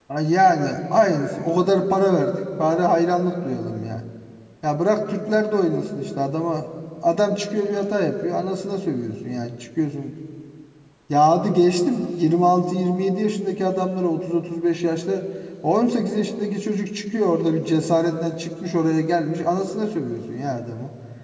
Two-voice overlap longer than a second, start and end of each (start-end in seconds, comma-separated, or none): none